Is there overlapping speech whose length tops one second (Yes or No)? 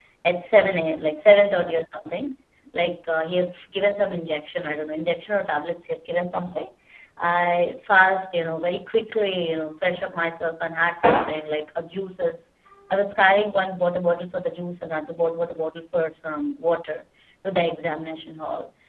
No